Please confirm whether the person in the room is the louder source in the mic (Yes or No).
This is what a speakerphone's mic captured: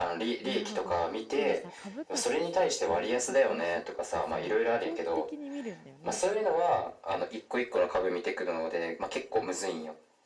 No